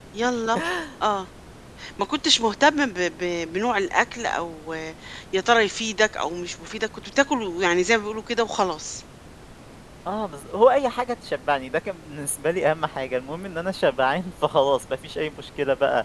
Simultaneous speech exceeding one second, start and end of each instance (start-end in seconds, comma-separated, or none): none